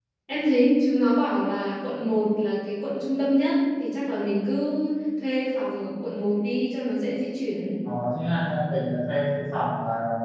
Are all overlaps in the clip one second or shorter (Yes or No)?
Yes